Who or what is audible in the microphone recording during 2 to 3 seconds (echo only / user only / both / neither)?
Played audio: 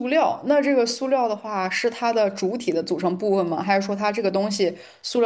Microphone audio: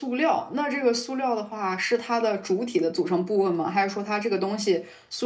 echo only